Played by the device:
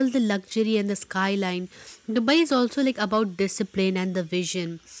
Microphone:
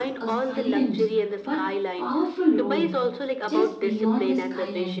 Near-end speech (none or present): present